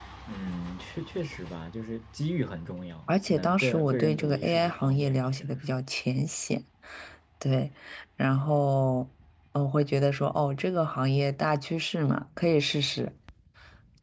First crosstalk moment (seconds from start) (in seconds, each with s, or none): 3.1 s